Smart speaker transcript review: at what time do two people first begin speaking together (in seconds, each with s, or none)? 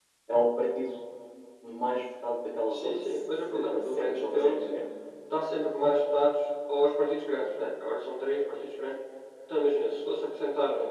2.7 s